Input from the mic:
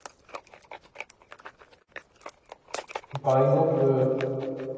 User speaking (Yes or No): Yes